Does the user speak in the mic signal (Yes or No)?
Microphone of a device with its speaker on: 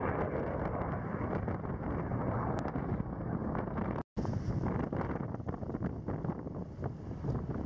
No